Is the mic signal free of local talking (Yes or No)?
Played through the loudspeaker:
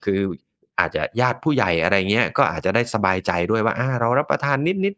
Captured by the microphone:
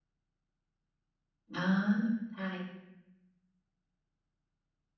No